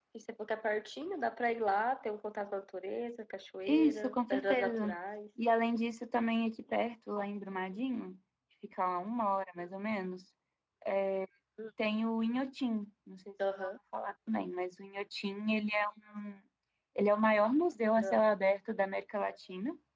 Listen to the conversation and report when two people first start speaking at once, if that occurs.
4 s

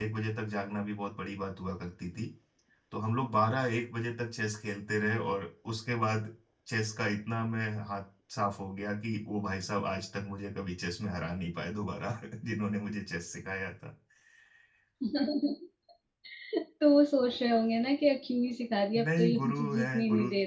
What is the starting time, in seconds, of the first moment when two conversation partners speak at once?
19 s

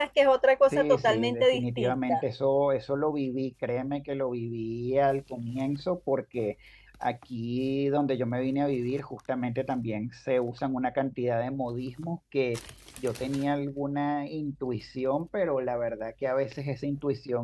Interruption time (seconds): 1 s

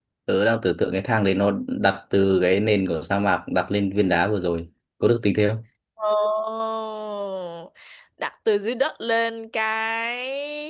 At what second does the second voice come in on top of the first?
none

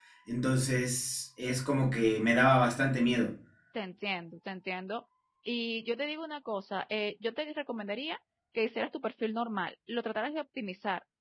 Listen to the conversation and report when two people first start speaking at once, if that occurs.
none

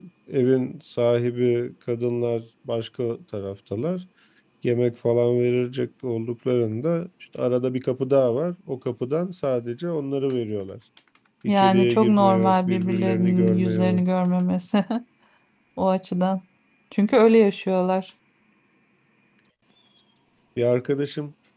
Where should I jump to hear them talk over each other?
11 s

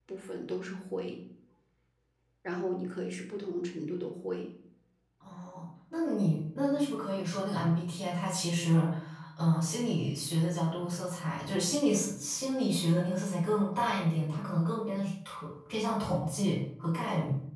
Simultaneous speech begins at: none

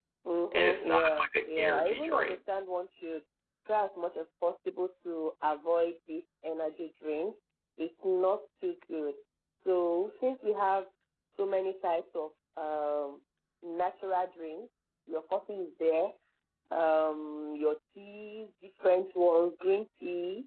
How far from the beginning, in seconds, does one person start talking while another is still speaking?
1 s

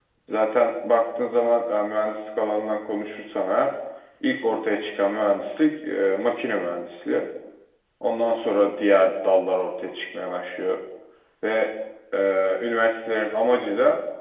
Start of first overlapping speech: none

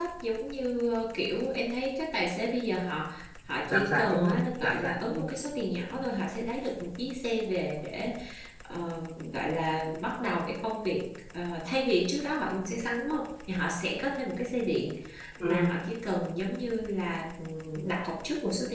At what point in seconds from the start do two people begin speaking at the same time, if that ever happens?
4 s

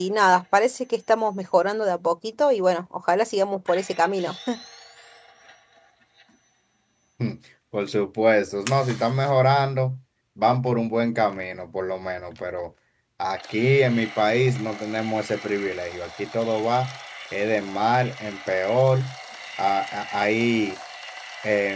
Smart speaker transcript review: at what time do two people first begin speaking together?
none

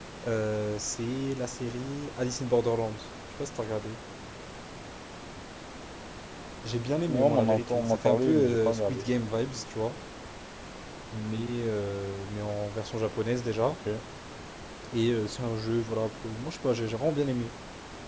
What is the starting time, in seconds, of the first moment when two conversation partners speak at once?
7 s

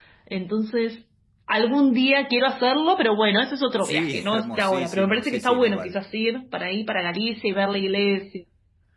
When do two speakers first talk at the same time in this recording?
4 s

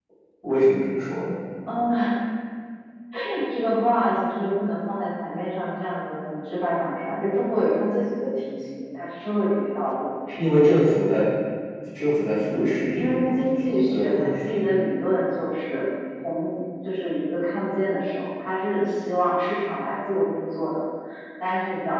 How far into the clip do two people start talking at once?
13 s

